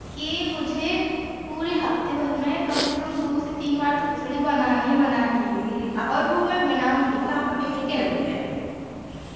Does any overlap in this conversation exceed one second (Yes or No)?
No